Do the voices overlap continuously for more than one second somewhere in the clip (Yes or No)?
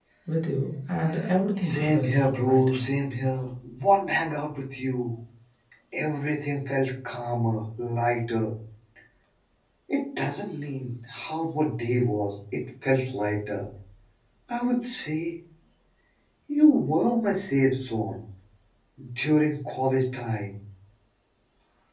Yes